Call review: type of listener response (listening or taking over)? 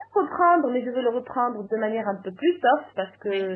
listening